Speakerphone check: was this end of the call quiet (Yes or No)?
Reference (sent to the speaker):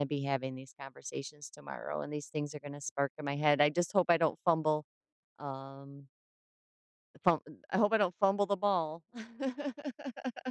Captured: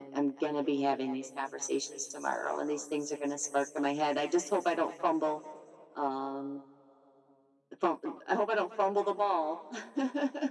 Yes